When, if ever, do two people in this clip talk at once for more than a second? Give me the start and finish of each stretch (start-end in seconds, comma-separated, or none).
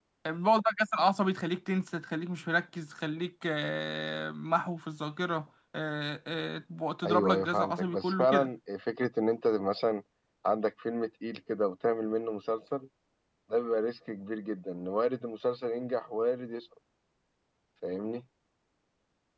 7.0-8.5